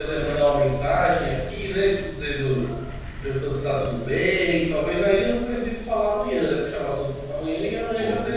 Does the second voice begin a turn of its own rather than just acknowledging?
Yes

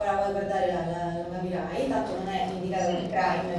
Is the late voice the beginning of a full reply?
No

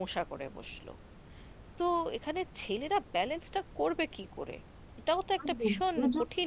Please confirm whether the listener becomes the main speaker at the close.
Yes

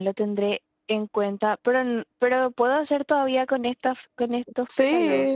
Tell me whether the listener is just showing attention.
No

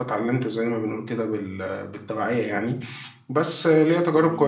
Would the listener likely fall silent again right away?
Yes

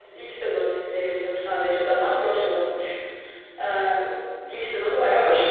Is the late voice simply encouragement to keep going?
No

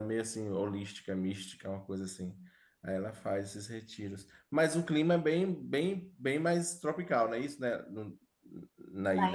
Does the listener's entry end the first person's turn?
Yes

